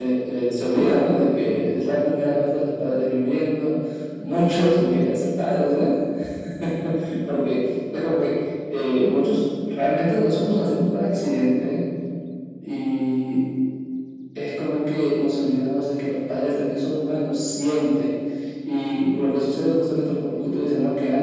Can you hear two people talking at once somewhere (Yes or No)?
No